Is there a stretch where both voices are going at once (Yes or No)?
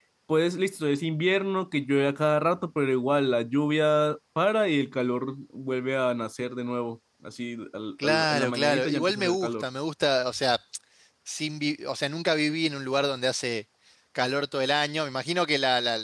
Yes